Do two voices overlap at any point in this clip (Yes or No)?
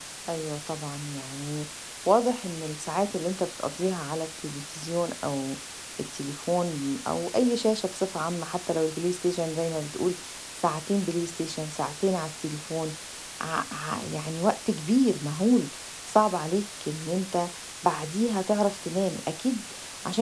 No